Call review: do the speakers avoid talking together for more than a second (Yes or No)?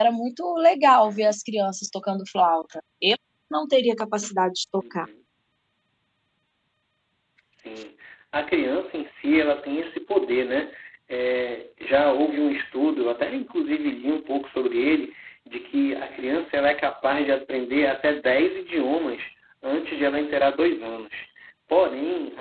Yes